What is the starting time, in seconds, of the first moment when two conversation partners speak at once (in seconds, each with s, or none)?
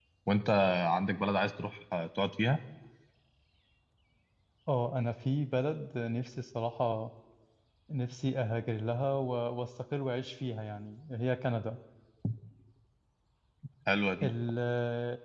none